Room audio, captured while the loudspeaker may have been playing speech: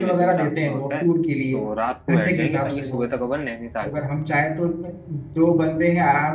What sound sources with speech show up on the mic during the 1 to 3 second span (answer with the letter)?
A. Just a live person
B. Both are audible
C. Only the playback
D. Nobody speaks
B